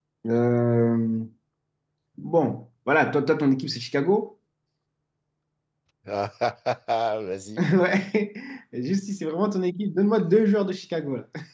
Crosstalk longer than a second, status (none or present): none